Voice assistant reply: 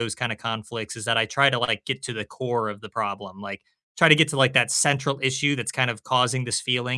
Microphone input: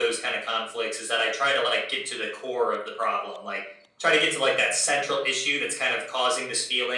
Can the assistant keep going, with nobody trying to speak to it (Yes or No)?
Yes